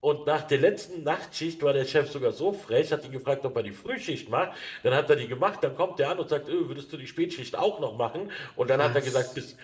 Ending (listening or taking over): listening